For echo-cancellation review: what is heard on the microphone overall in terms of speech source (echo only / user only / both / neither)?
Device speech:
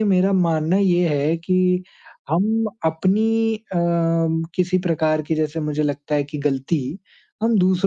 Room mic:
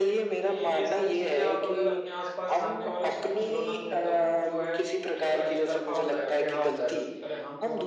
both